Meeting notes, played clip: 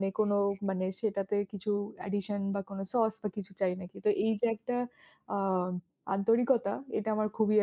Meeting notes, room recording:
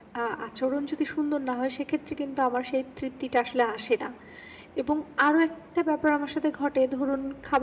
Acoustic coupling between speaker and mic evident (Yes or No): No